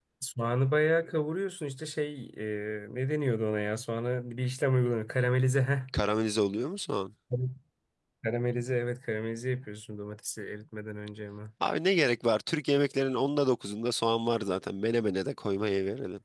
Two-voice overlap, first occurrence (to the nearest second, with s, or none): none